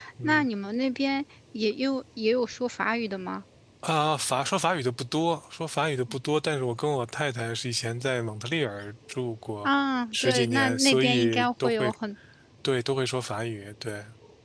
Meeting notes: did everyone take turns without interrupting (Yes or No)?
No